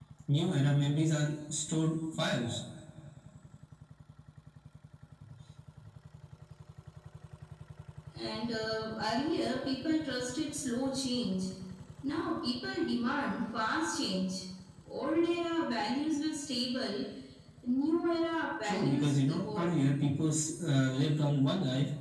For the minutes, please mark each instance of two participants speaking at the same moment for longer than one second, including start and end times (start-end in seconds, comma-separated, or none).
18.6-19.9